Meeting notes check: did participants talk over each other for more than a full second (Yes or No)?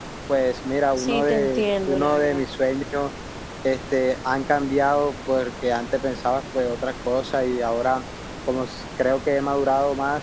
Yes